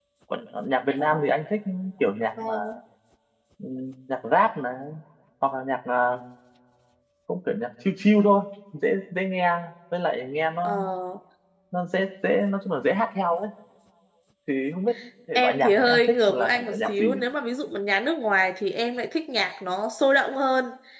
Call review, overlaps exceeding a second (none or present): present